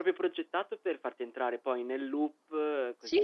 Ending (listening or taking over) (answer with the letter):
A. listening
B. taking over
B